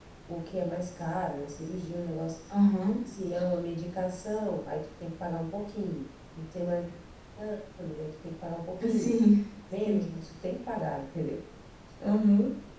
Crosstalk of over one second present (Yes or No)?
No